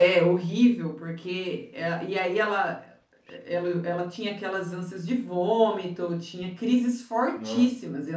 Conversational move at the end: listening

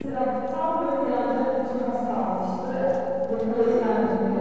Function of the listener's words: listening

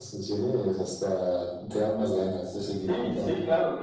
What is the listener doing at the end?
taking over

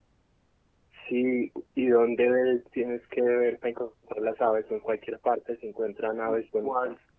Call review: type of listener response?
taking over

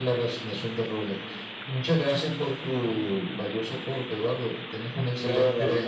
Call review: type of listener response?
taking over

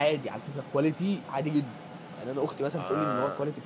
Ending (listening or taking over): listening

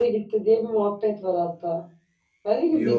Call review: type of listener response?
listening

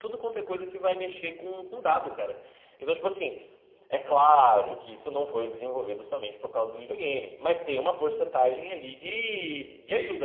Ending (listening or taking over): taking over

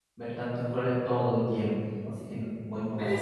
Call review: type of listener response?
taking over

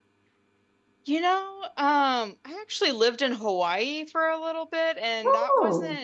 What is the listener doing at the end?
listening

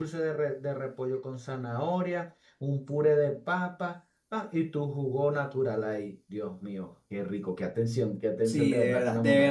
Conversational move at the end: taking over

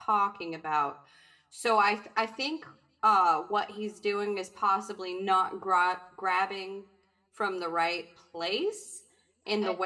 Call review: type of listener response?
taking over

